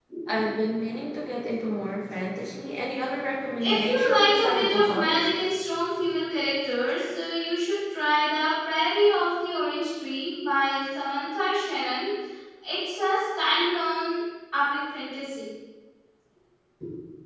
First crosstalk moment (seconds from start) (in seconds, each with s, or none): 3.6 s